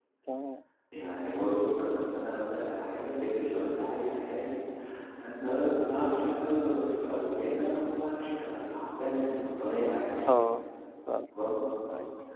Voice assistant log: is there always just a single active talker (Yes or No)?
Yes